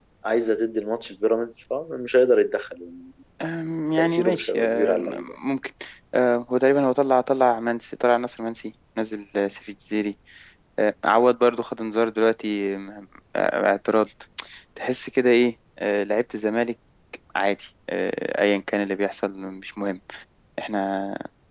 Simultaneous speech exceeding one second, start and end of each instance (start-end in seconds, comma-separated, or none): 4.0-5.3